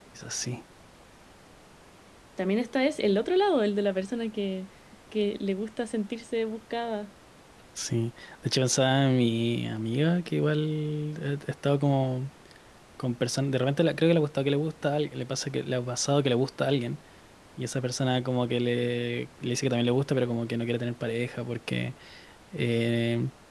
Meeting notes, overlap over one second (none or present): none